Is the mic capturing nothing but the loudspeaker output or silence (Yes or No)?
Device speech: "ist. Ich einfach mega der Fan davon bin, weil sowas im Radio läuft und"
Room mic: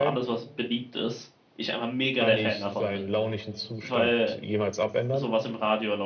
No